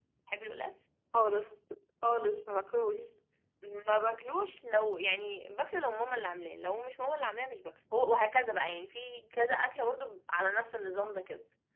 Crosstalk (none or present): none